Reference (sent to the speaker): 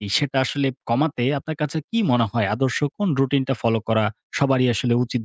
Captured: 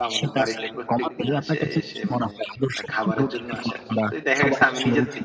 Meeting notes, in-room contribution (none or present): present